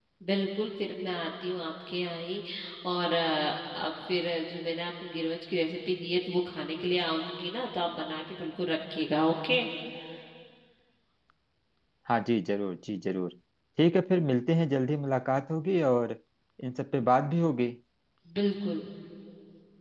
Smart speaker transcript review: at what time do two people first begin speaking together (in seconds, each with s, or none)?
none